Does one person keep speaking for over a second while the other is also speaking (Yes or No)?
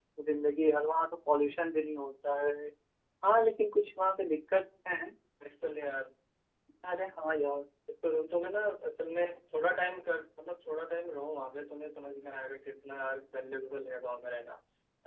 No